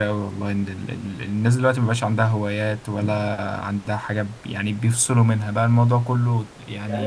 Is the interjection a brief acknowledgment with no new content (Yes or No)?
No